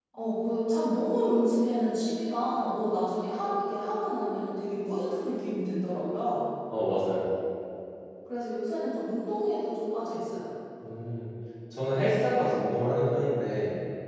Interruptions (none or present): none